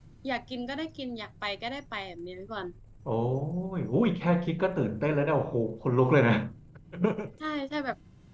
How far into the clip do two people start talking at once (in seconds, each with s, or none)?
none